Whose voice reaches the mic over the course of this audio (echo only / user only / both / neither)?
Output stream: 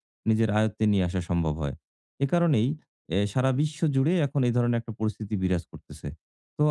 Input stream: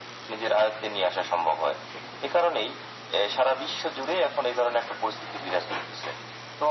echo only